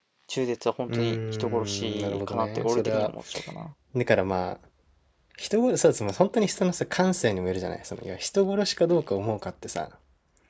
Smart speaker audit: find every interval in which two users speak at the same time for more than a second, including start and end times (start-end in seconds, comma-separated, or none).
0.9-3.1